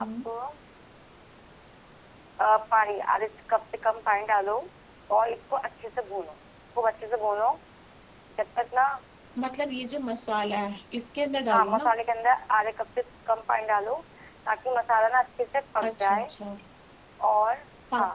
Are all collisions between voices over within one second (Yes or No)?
Yes